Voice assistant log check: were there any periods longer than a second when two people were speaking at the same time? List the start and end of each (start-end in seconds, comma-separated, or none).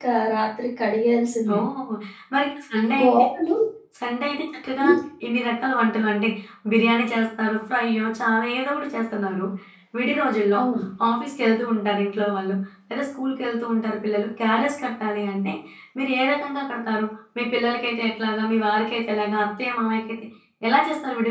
none